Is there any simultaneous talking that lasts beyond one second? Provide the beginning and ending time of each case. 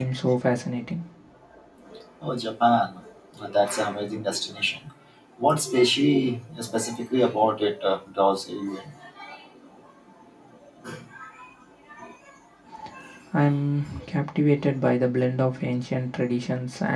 none

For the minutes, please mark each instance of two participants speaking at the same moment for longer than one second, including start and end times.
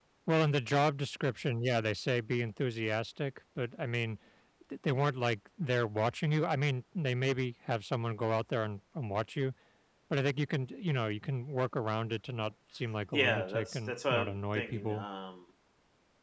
13.1-15.1

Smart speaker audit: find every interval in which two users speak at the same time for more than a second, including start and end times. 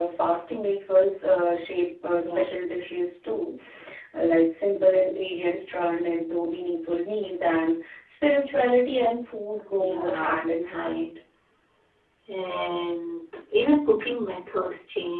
9.7-11.1

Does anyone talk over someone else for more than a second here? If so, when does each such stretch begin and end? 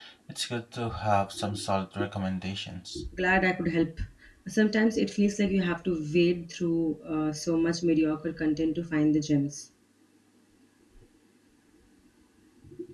none

